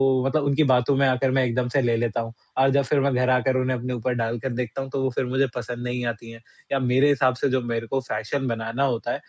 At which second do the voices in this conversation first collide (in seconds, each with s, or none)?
none